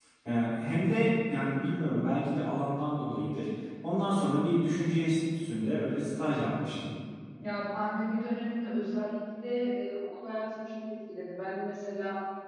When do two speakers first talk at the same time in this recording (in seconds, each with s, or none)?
none